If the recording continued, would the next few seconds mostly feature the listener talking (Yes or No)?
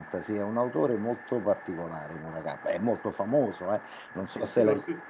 Yes